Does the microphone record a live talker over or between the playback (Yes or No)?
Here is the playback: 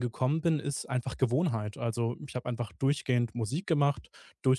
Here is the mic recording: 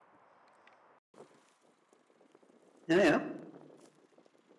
Yes